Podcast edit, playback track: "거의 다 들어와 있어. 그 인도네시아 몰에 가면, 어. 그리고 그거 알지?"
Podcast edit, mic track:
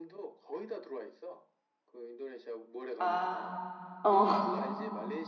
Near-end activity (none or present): present